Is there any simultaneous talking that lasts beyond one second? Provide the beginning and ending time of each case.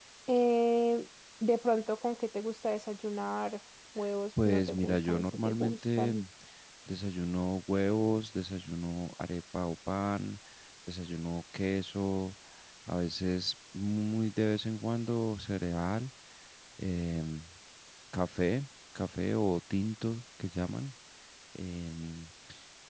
4.4-6.1

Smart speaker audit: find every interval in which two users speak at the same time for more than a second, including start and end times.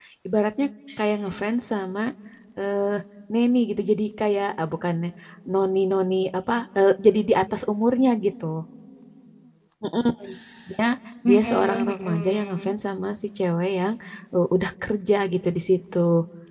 11.3-12.7

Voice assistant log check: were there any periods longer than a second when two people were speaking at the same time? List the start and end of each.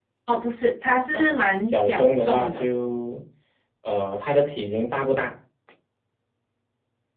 1.1-2.6

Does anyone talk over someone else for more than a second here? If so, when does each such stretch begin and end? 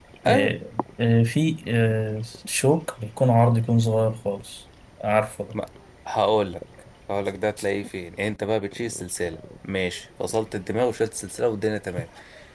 none

